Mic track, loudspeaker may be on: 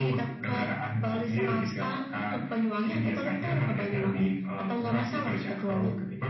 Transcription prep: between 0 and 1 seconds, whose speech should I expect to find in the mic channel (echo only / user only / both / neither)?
echo only